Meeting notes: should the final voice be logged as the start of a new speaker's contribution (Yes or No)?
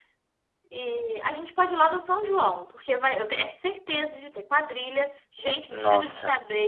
No